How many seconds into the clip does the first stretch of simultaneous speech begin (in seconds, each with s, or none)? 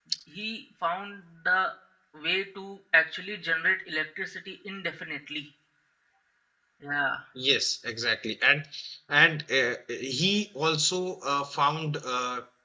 none